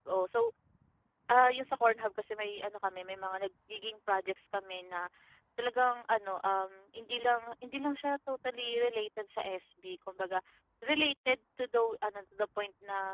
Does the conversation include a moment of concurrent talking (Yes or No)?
No